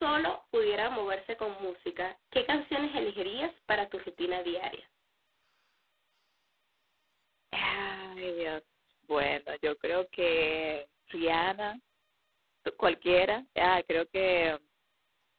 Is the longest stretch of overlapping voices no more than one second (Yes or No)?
Yes